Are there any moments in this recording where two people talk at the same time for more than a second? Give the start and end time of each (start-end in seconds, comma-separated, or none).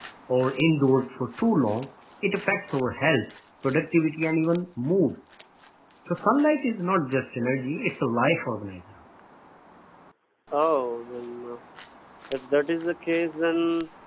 none